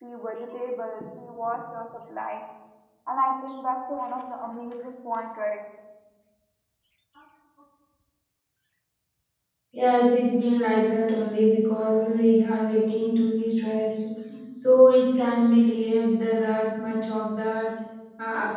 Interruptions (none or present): none